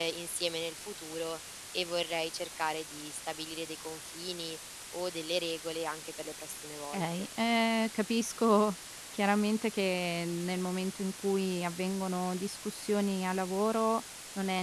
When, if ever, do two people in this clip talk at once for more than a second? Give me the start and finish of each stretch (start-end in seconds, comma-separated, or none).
none